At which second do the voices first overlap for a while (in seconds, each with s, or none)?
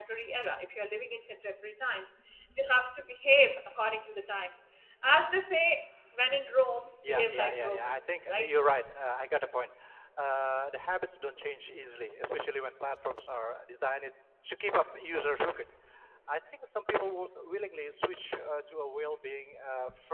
7.0 s